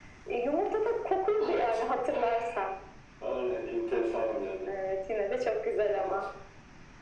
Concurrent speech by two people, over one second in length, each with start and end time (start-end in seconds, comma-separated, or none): none